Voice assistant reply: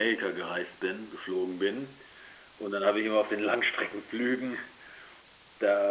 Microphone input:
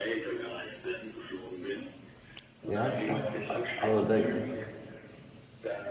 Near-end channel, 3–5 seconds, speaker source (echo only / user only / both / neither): both